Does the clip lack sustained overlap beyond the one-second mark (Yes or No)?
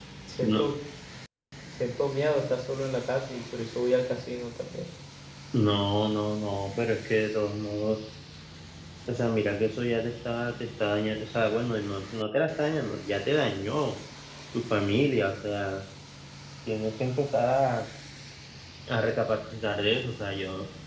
Yes